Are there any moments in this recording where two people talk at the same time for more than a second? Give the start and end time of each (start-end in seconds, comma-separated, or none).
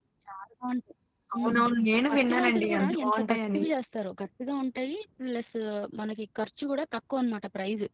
2.1-3.6